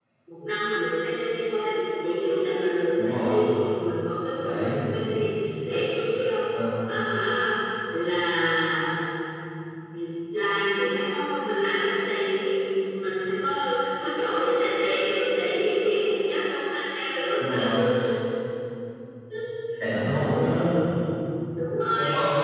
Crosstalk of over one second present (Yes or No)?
No